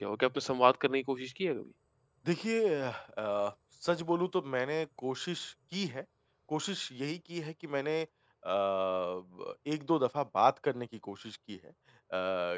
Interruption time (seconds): none

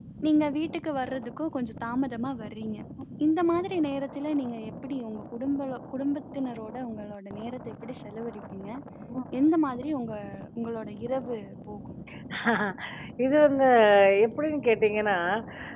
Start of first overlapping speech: none

